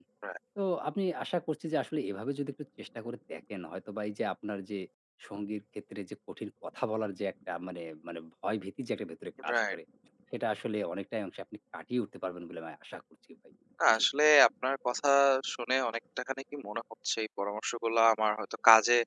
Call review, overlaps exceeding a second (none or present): none